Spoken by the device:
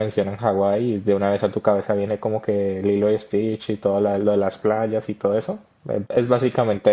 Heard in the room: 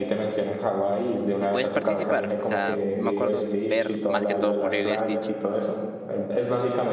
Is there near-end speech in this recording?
Yes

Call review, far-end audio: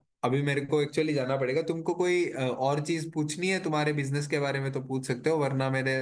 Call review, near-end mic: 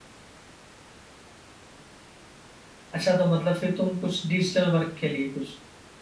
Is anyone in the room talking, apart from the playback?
Yes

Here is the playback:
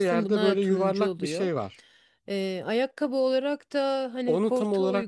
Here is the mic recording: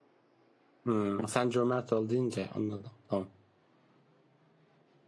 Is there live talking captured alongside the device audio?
Yes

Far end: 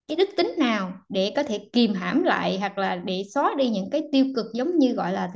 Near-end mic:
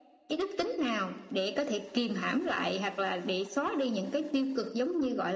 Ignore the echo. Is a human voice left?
No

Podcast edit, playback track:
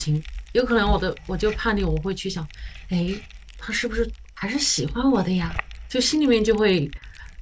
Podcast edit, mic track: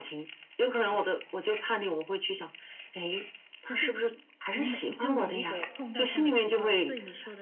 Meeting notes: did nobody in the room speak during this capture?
No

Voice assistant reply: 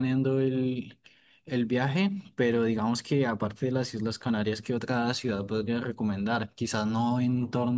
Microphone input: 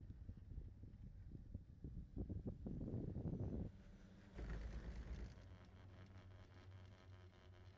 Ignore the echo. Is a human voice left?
No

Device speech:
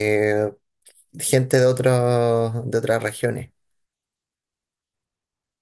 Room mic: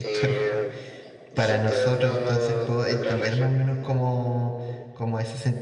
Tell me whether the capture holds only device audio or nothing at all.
No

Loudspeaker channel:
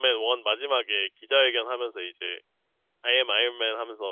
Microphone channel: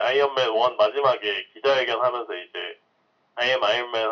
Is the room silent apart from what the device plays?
Yes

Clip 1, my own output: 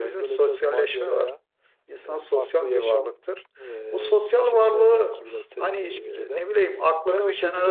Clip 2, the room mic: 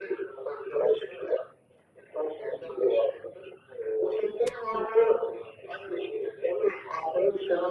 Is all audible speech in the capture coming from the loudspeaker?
Yes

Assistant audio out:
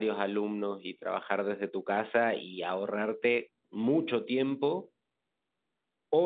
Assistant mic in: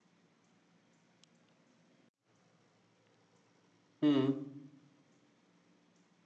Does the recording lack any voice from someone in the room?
No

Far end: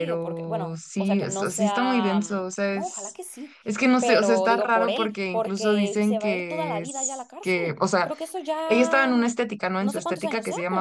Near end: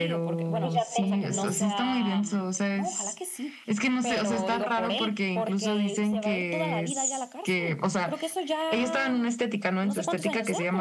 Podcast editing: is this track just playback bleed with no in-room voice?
No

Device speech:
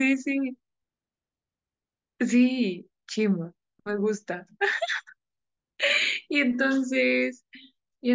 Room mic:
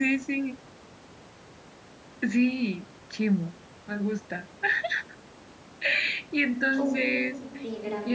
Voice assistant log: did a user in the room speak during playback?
Yes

